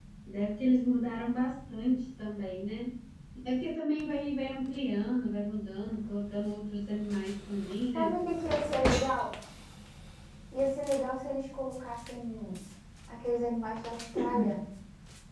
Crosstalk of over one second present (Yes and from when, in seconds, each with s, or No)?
No